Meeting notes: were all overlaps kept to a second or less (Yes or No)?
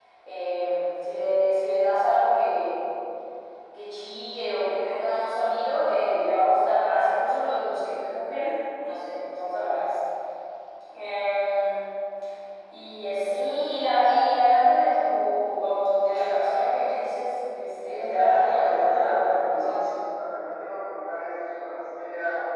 No